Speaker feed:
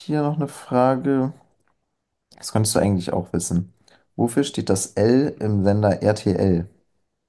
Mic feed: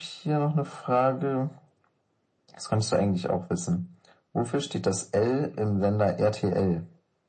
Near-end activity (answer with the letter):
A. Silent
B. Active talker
A